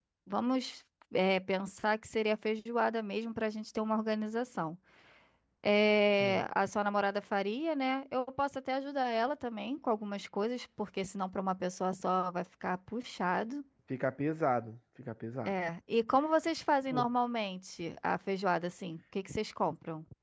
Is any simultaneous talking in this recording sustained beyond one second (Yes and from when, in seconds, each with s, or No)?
No